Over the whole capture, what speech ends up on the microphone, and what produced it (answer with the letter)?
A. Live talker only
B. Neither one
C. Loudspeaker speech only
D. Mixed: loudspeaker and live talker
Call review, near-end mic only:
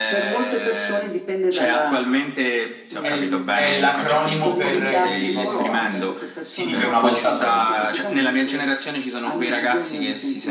D